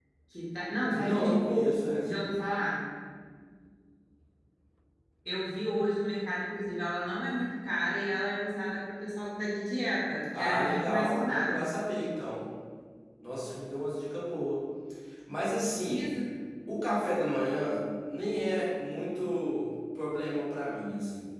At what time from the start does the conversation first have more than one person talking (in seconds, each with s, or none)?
0.9 s